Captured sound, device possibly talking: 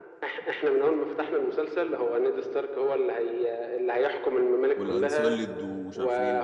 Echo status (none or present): present